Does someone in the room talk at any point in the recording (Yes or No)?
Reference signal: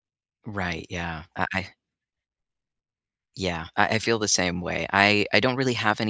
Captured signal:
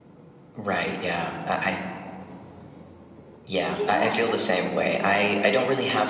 Yes